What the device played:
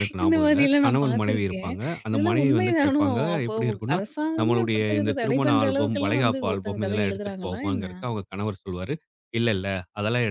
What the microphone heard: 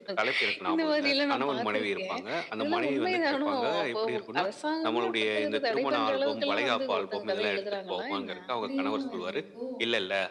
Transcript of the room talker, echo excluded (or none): இப்படியெல்லாம் வேற இருக்கோ!